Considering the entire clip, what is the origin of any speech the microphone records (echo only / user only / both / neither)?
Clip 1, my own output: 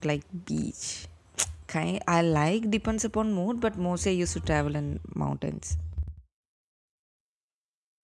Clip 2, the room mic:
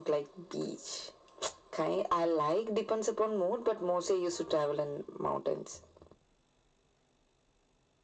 echo only